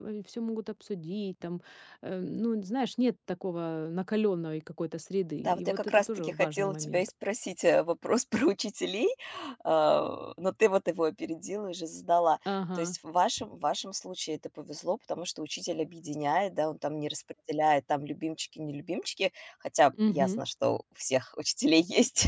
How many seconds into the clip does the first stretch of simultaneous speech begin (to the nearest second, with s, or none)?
5 s